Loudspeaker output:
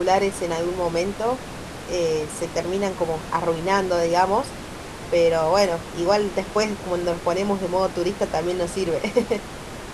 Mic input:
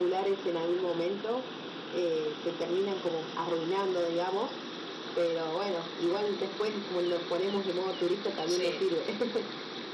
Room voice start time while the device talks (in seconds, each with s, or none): 8.4 s